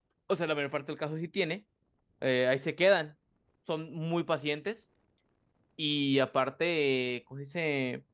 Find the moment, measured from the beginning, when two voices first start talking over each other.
none

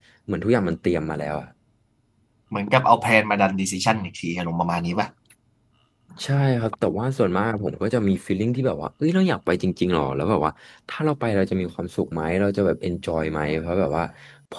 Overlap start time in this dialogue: none

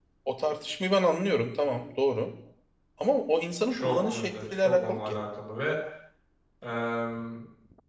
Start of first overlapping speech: 3.7 s

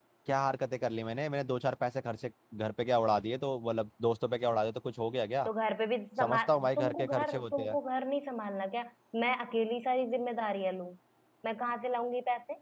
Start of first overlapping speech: 6.2 s

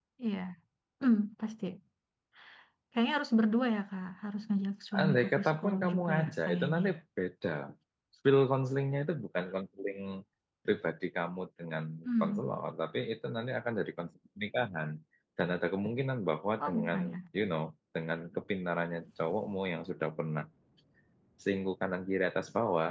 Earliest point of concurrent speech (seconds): 5.0 s

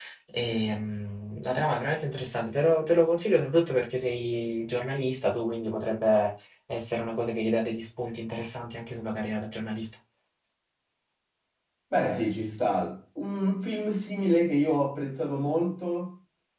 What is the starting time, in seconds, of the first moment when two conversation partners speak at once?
none

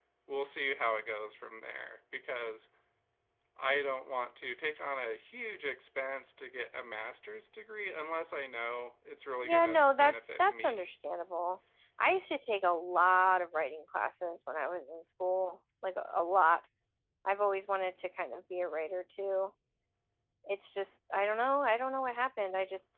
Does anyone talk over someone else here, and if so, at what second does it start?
9.4 s

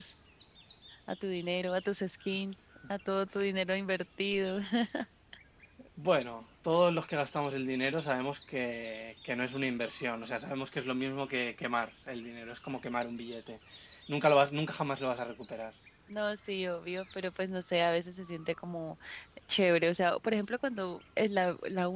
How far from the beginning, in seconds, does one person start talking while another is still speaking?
none

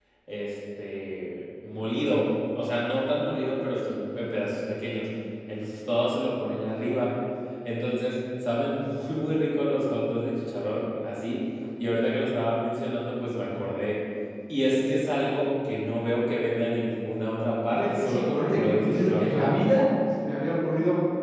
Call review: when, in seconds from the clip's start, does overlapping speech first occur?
17.7 s

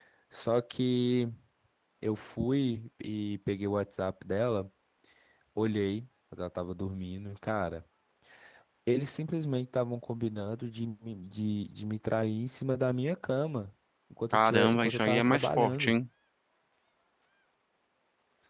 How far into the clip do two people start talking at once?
14.3 s

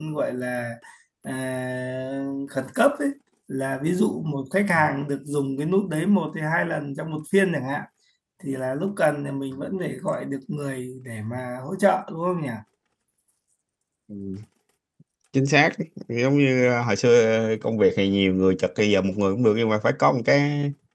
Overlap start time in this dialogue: none

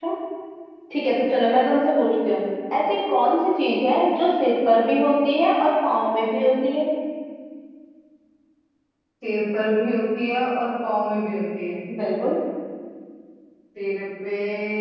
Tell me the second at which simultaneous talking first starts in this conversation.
none

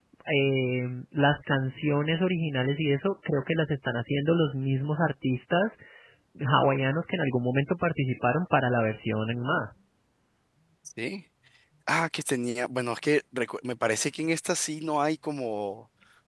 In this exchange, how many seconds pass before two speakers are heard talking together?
none

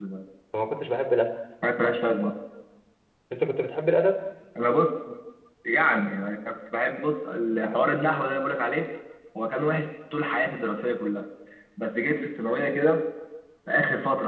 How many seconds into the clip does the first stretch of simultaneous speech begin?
none

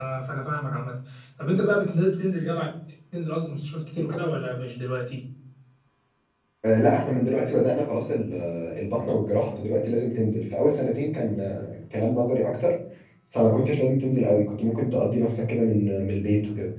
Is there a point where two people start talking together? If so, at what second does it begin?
none

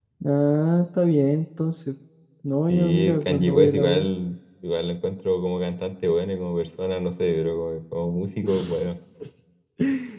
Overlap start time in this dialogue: 2.7 s

